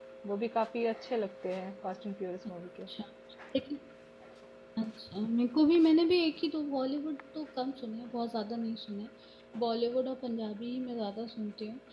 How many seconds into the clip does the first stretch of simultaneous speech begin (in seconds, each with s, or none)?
none